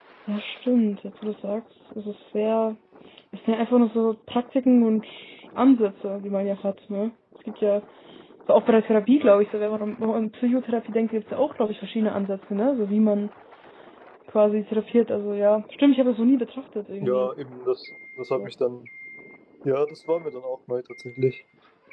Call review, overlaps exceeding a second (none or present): none